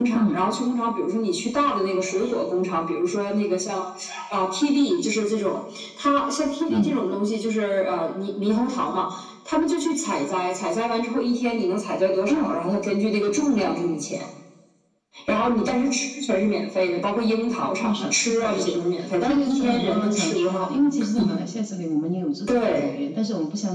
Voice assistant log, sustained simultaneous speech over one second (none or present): present